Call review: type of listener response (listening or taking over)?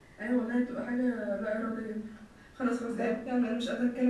listening